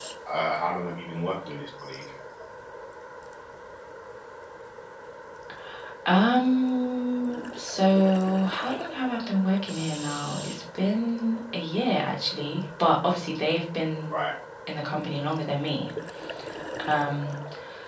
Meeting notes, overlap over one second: none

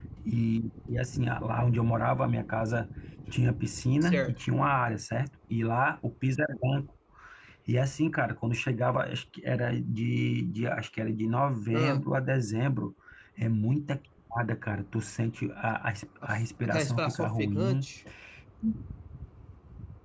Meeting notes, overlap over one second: present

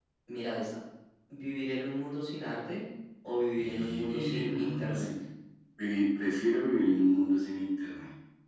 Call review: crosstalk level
present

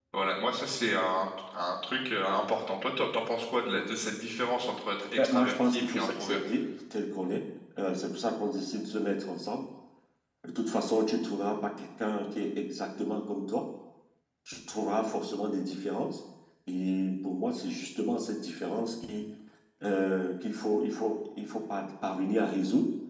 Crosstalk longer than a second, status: present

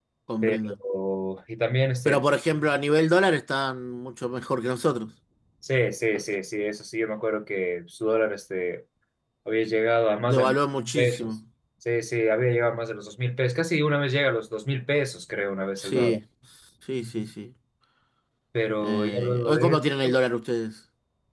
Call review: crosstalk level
present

